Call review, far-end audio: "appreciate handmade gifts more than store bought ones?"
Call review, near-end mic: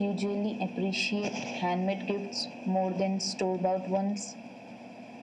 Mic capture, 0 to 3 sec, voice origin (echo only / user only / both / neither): echo only